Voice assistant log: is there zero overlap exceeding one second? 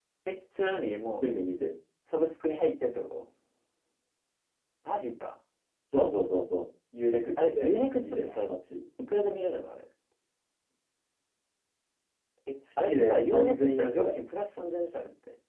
No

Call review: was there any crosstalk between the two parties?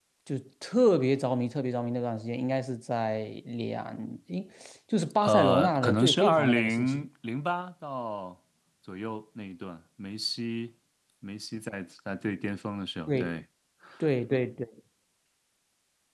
Yes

